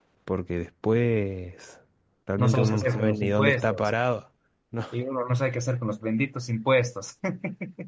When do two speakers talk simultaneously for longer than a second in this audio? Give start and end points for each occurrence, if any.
2.4-3.9

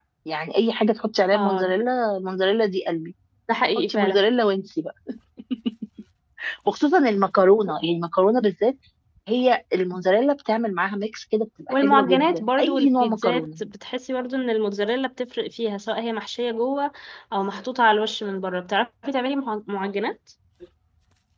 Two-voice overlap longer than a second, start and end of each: 11.7-13.6

